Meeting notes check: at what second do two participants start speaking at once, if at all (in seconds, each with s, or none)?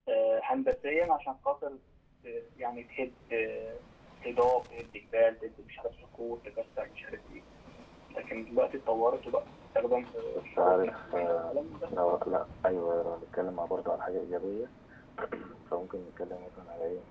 10.4 s